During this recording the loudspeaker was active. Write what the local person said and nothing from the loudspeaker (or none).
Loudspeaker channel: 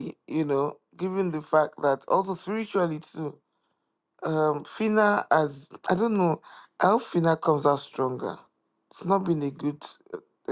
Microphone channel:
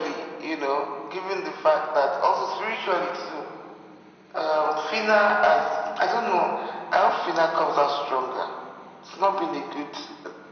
none